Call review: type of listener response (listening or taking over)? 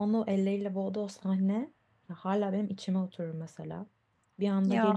listening